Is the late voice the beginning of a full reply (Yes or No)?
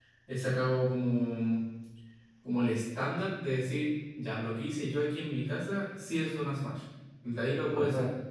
Yes